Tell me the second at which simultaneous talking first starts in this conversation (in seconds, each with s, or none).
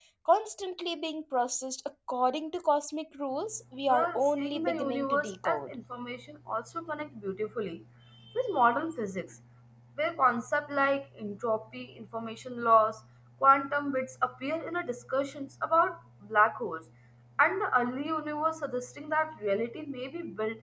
3.9 s